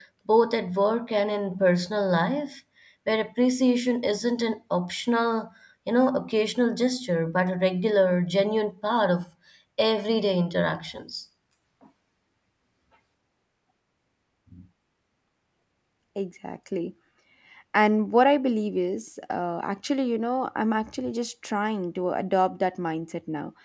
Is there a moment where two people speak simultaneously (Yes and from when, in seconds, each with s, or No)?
No